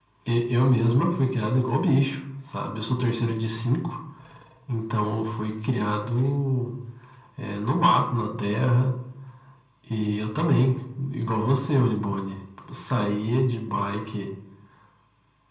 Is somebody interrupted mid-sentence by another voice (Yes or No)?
No